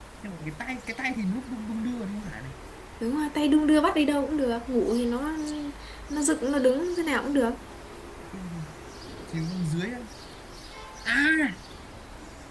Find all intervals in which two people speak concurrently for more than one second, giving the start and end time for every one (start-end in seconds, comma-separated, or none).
none